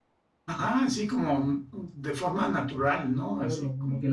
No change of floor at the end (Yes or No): No